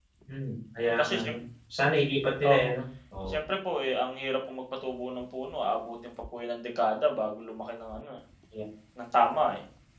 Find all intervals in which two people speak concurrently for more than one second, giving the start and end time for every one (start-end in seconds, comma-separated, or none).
none